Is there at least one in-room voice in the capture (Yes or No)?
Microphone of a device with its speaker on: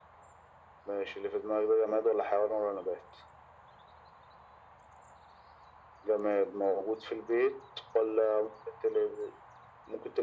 No